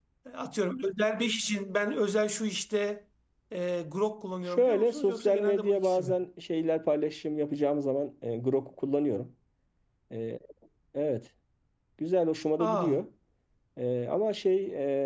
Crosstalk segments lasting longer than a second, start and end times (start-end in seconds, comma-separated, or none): 4.5-6.2